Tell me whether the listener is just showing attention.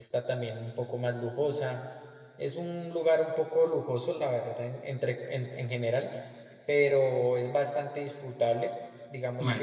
Yes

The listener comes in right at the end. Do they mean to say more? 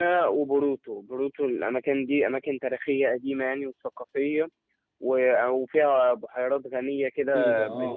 Yes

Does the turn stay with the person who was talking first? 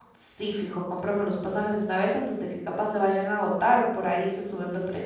No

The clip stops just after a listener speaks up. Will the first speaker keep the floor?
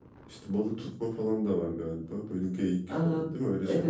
No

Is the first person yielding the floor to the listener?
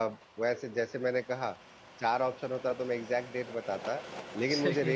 No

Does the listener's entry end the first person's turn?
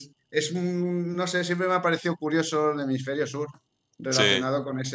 No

